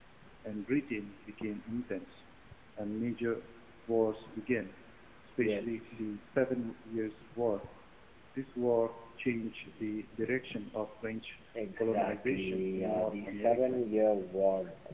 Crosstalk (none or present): present